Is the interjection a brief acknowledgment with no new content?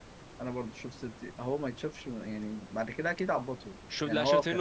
No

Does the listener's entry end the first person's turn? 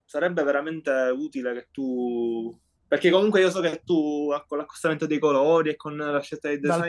Yes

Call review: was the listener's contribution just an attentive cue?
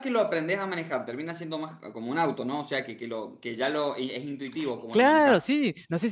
No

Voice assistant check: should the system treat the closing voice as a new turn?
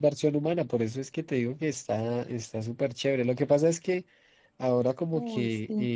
No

